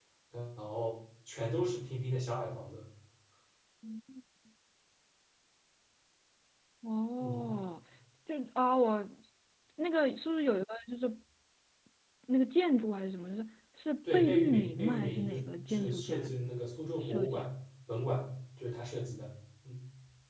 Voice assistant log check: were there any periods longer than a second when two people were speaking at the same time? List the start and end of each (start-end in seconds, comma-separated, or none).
14.1-16.3